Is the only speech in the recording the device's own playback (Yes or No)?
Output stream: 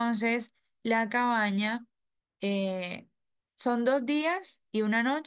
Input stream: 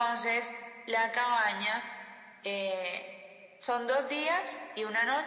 Yes